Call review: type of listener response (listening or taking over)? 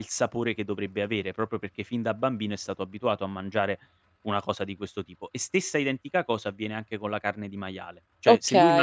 listening